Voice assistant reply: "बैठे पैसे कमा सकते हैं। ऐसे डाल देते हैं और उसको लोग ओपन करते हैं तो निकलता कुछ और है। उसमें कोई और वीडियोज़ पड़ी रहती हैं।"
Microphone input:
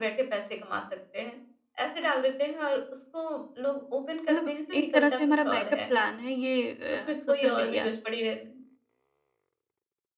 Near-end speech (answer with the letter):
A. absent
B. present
B